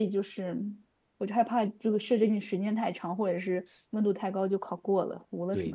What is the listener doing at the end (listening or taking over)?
taking over